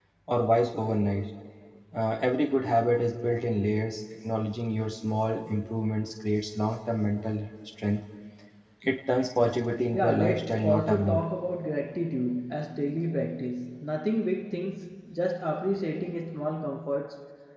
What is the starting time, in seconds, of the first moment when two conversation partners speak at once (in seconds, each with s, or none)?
9.9 s